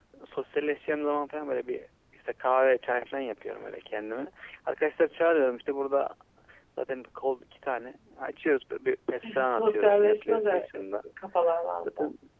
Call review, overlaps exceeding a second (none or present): present